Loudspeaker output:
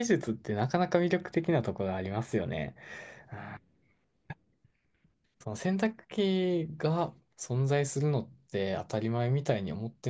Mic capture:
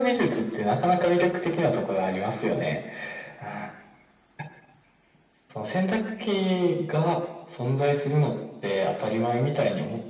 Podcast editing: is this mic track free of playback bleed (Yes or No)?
No